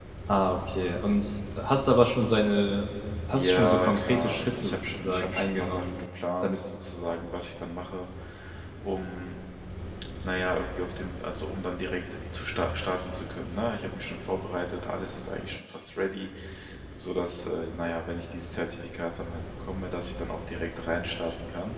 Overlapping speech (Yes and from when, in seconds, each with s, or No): Yes, from 3.3 s